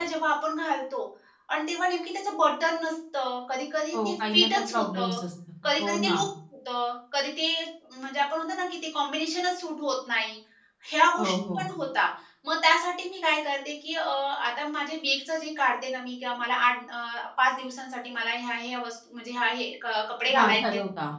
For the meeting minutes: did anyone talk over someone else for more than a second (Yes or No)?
Yes